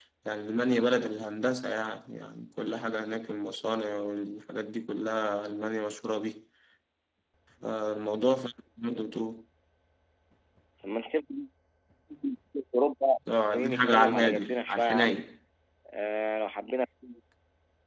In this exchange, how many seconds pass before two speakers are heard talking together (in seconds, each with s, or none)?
13.5 s